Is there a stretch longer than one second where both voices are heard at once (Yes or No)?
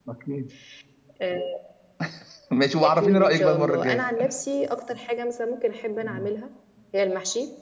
Yes